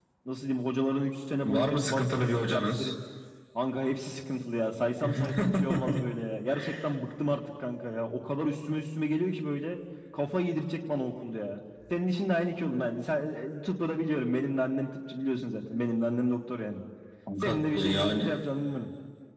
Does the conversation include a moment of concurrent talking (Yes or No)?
Yes